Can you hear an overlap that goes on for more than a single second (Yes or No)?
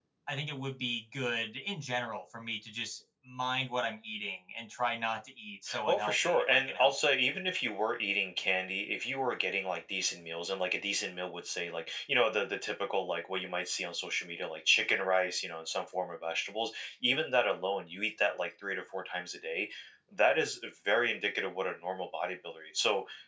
Yes